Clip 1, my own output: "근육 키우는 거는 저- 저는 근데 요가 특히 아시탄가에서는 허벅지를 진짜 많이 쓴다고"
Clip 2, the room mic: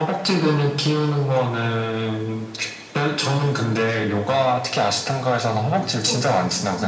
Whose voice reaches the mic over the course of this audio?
both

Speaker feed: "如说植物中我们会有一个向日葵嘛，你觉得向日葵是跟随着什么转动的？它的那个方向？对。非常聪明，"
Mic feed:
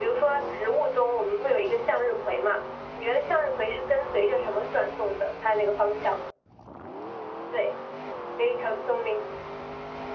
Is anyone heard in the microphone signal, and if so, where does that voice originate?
echo only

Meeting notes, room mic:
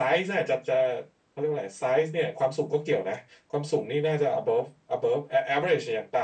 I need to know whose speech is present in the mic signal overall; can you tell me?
echo only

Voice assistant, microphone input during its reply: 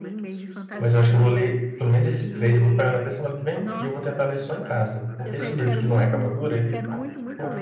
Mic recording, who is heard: both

